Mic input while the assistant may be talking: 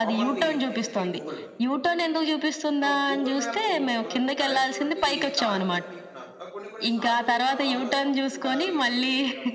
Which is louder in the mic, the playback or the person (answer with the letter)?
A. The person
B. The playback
B